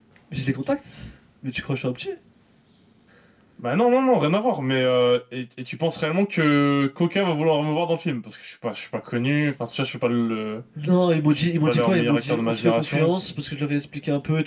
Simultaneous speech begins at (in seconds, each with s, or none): 11.3 s